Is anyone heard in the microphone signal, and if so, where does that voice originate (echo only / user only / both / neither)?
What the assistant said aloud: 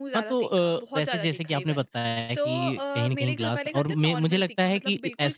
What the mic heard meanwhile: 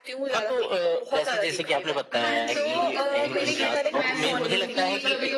both